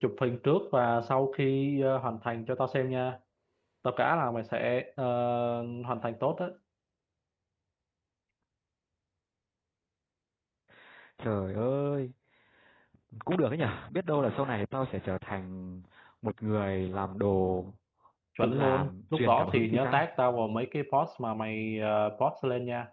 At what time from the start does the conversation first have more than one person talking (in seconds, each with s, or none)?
18.4 s